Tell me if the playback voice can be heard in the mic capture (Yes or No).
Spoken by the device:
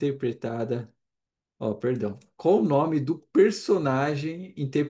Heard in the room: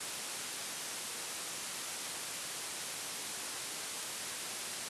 No